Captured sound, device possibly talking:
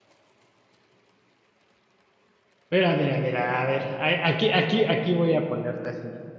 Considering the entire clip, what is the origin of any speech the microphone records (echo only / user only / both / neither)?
user only